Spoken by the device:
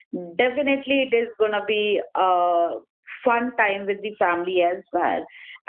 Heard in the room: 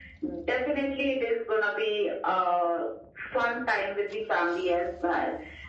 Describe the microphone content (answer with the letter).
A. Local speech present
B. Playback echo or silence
B